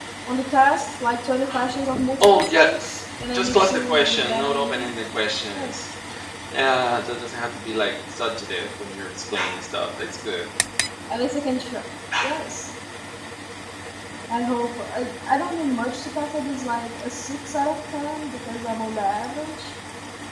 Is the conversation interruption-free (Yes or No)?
No